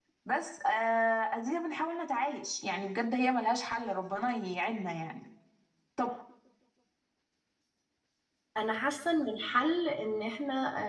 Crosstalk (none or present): none